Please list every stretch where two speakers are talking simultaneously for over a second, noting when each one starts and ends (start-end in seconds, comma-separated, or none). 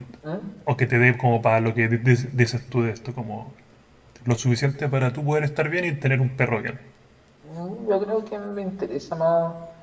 none